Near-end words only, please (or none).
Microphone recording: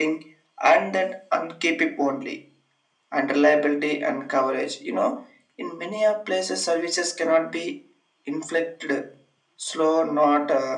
none